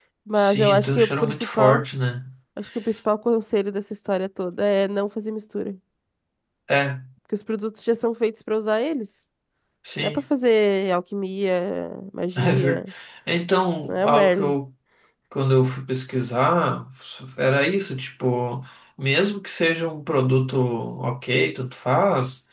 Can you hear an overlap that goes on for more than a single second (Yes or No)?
Yes